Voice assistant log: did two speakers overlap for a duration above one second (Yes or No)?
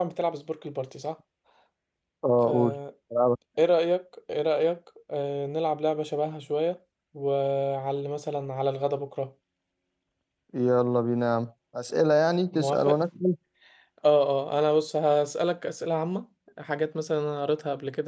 No